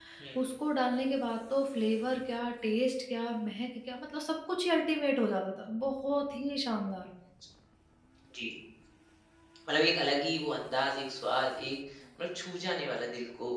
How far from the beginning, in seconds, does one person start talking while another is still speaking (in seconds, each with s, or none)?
none